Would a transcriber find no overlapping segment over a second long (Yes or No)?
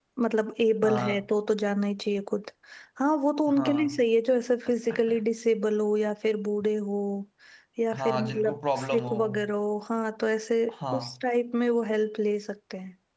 No